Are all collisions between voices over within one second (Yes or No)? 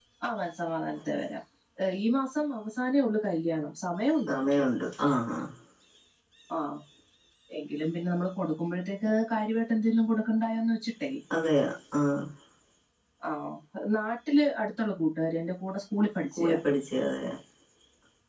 Yes